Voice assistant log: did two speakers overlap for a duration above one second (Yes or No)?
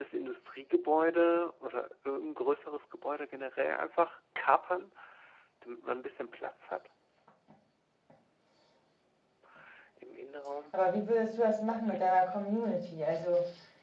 No